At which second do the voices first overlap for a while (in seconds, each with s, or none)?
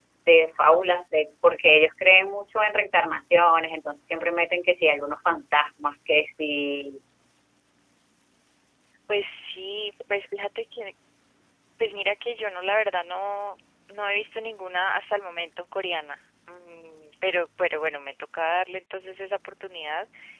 none